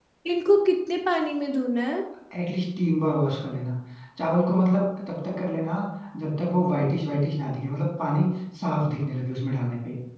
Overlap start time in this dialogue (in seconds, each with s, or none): none